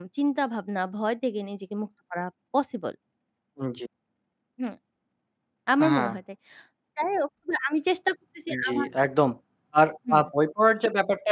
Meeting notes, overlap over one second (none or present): none